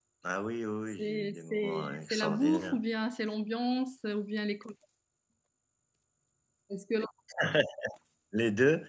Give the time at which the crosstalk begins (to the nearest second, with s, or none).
1 s